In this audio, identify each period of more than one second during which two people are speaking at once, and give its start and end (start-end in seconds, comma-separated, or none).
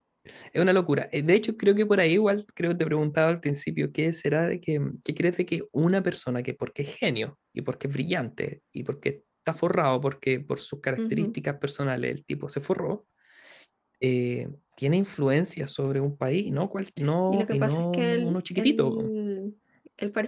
17.3-19.1